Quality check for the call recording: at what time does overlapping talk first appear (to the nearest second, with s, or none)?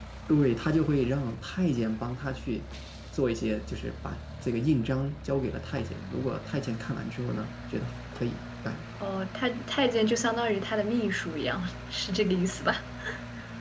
none